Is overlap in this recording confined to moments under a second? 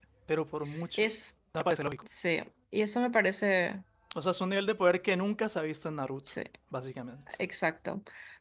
Yes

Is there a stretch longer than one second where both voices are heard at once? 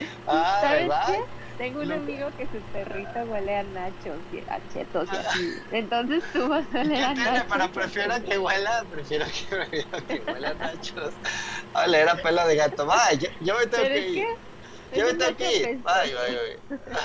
Yes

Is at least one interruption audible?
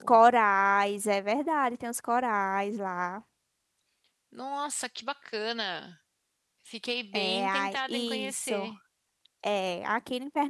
Yes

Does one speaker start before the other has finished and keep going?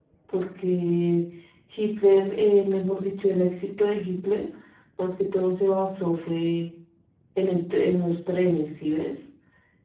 No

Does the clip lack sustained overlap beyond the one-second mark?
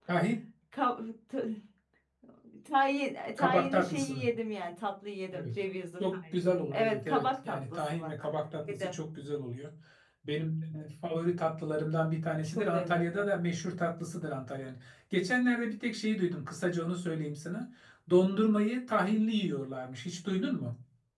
No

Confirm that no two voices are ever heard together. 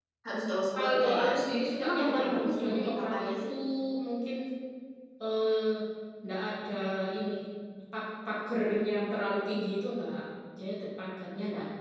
No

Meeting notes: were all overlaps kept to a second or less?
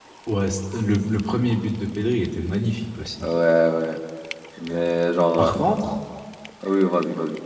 Yes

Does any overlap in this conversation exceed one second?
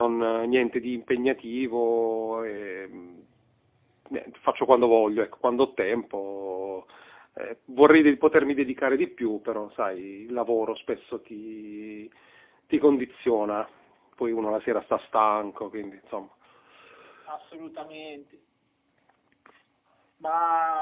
No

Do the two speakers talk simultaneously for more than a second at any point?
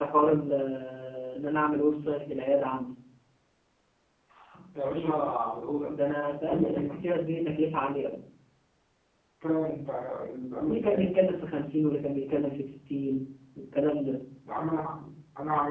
No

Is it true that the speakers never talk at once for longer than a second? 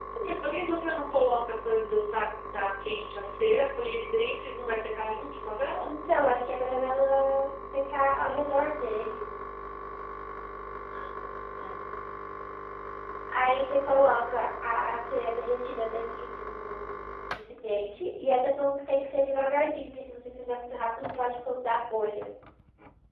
Yes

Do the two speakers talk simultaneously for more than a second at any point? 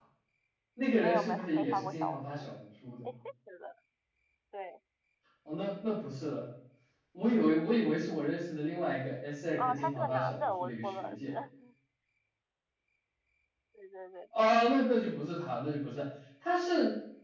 Yes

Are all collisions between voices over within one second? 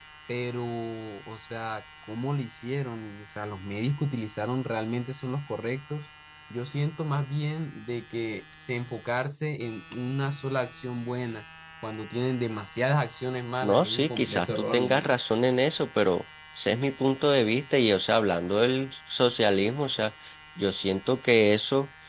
No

